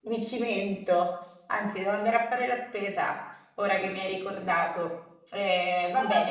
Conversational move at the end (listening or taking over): listening